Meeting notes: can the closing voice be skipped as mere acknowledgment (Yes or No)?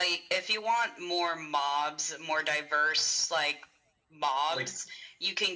Yes